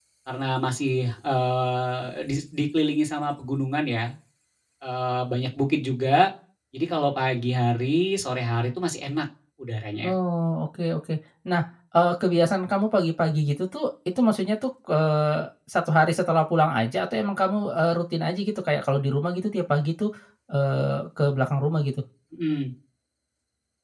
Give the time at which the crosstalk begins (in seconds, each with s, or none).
none